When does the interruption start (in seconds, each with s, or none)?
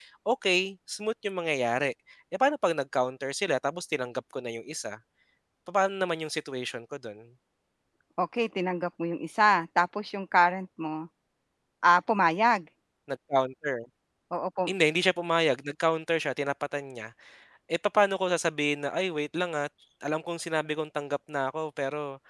none